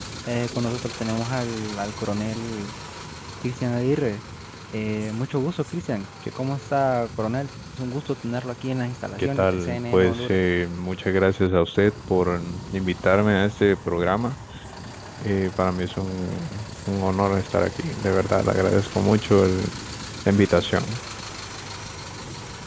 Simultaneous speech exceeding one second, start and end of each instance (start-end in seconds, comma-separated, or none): 9.2-10.4